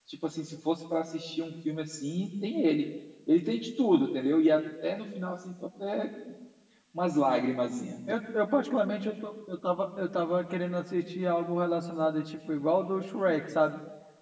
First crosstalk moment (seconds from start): none

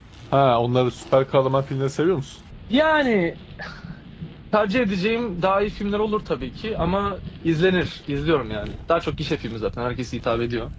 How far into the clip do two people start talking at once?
none

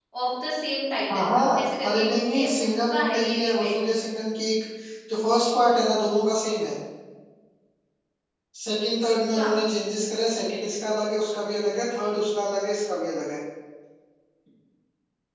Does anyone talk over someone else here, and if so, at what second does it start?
1.1 s

